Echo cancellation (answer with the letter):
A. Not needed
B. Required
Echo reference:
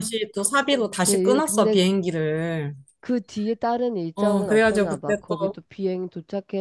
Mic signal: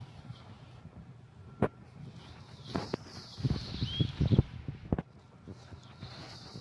A